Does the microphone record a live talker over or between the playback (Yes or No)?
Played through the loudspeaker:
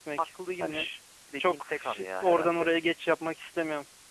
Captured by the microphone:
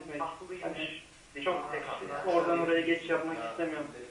Yes